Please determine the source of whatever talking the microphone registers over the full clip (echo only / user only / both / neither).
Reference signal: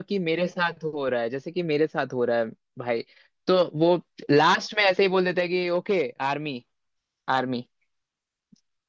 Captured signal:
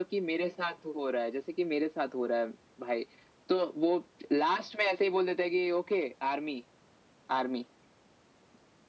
echo only